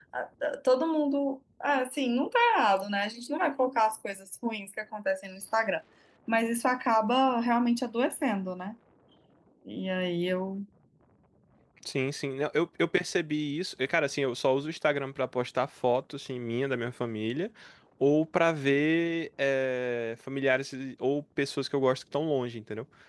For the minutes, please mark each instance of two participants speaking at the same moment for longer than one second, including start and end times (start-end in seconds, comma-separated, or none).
none